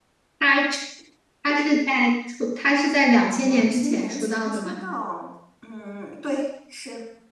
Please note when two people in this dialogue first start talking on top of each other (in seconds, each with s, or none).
3.4 s